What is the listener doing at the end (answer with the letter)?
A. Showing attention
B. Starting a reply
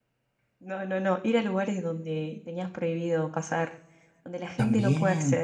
B